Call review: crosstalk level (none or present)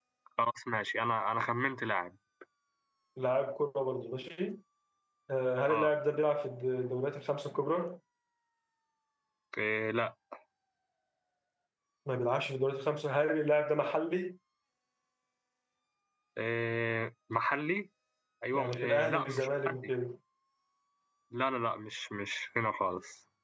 present